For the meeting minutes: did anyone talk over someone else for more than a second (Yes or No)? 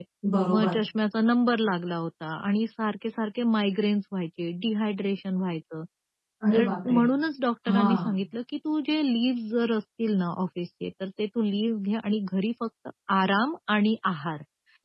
No